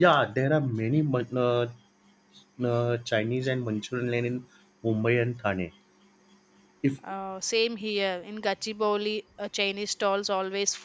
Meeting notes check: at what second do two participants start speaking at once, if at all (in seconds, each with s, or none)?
none